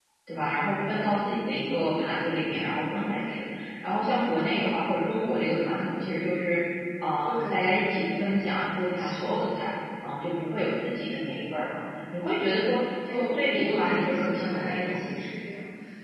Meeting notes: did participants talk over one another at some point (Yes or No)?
Yes